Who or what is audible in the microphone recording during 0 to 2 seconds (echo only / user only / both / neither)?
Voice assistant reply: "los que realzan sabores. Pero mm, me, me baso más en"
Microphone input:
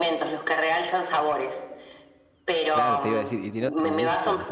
echo only